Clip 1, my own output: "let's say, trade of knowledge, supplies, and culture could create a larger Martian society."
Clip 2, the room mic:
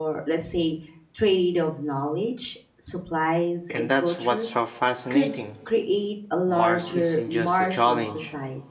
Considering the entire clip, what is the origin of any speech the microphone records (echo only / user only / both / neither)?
both